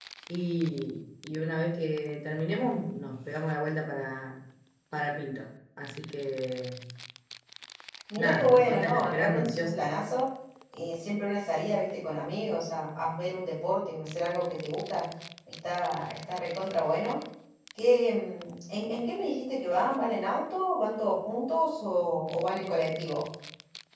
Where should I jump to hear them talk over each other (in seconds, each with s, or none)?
8.2 s